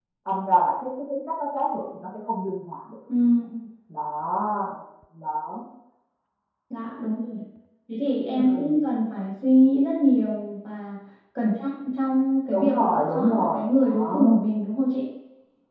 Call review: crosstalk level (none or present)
present